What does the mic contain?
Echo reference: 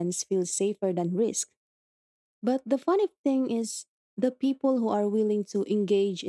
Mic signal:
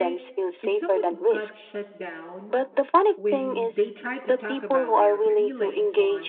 both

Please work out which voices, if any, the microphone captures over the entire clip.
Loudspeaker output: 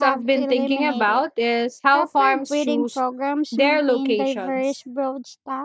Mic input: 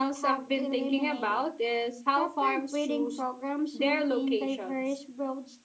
echo only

